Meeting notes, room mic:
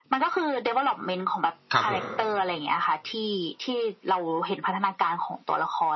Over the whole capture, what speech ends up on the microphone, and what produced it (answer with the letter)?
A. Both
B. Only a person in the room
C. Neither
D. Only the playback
A